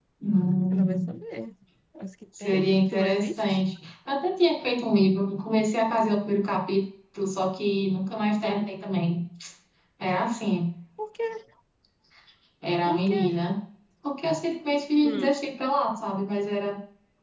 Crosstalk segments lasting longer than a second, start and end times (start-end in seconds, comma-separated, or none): 2.4-3.6